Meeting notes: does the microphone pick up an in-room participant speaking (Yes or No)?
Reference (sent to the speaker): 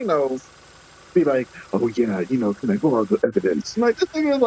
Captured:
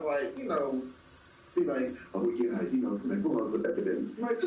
No